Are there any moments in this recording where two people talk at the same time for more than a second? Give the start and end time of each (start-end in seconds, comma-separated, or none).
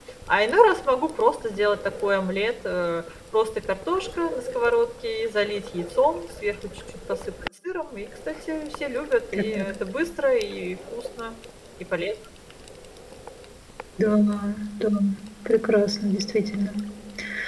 none